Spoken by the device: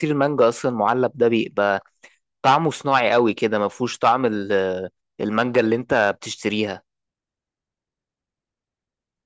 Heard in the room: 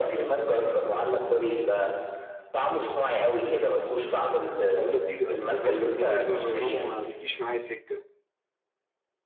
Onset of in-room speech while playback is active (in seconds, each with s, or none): 4.8 s